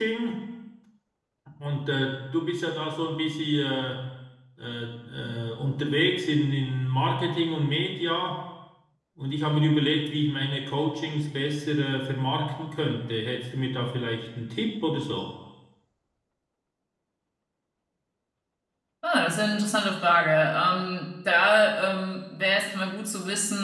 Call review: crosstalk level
none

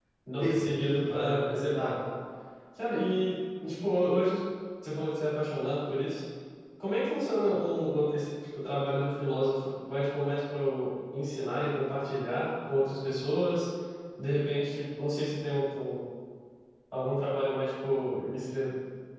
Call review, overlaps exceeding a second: present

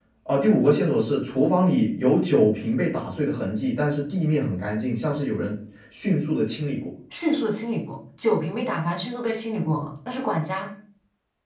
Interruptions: none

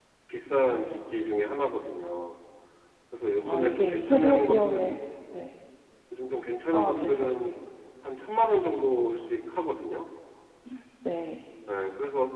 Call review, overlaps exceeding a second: present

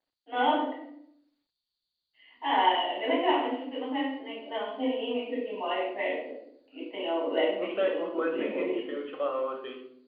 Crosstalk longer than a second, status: present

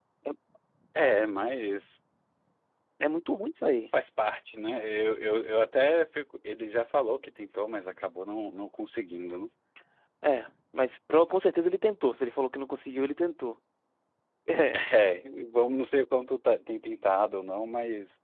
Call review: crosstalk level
none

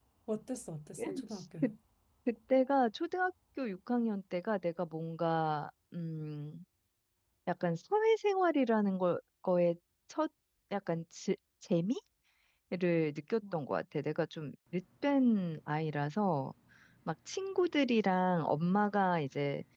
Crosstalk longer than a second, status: none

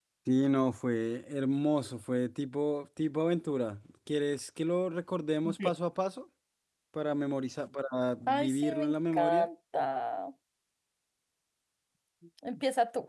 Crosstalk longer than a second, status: present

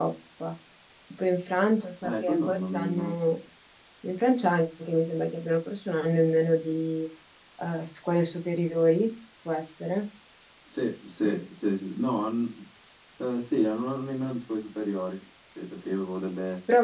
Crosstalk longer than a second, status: present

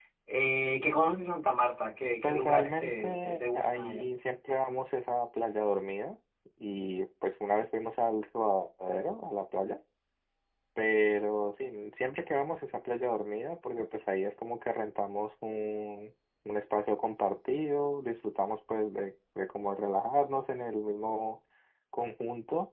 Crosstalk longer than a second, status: present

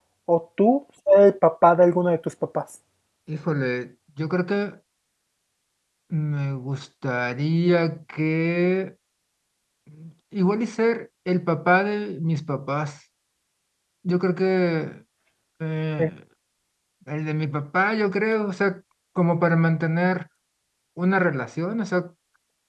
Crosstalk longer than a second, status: none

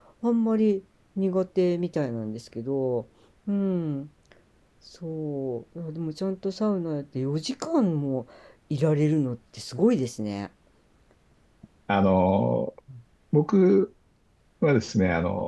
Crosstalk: none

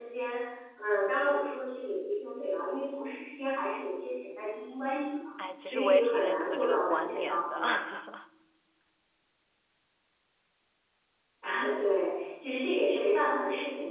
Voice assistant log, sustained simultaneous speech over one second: present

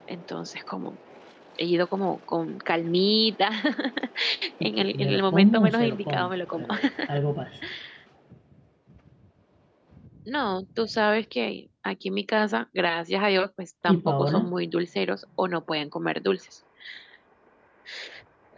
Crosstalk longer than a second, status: present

